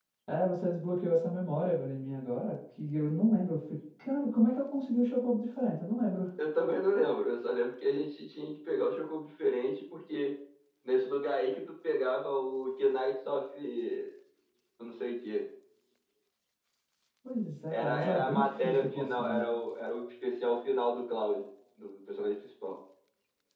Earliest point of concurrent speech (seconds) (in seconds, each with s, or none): 17.7 s